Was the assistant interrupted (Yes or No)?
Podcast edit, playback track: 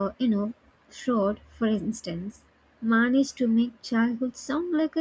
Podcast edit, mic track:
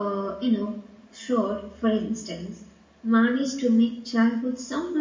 No